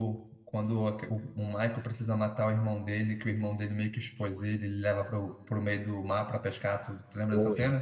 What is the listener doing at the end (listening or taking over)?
taking over